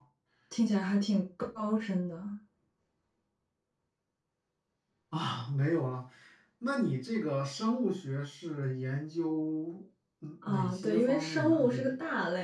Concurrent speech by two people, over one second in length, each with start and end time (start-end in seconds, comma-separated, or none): 10.5-11.9